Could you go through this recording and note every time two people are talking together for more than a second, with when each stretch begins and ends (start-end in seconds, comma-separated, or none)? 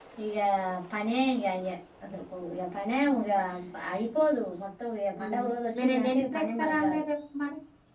5.8-7.0